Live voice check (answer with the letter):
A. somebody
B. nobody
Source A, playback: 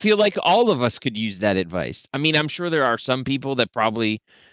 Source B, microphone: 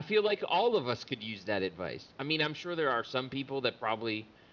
B